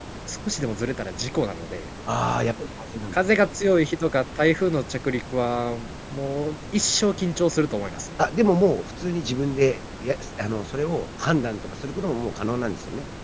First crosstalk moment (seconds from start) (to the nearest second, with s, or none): none